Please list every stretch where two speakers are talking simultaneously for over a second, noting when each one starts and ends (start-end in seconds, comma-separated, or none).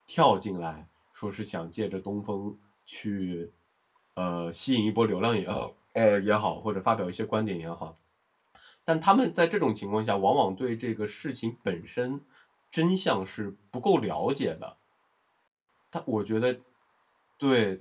none